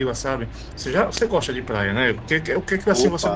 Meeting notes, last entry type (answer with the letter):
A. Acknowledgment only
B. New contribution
A